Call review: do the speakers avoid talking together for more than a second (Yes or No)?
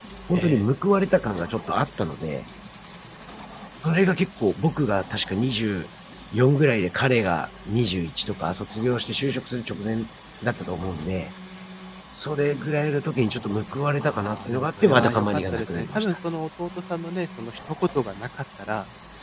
No